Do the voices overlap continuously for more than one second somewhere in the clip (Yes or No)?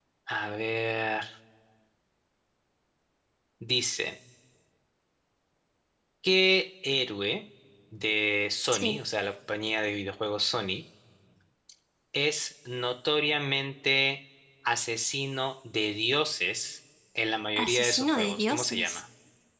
Yes